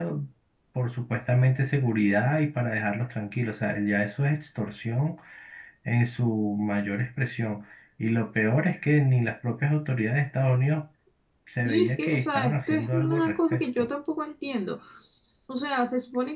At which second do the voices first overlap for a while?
11.6 s

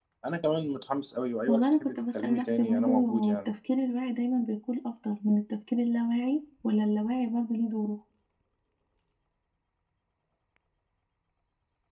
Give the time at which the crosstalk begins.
1.5 s

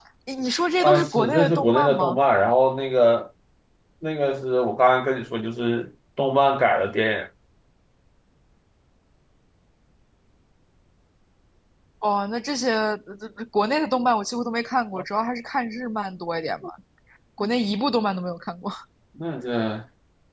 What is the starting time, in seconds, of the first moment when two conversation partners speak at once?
0.8 s

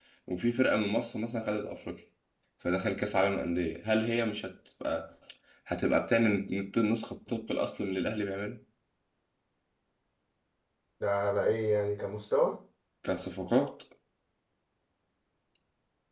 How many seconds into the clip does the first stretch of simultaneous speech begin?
none

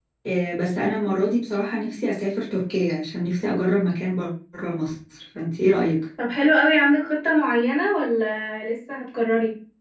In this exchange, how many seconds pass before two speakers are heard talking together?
none

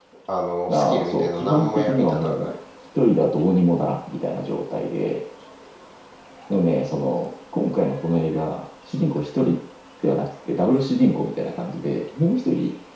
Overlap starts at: 0.7 s

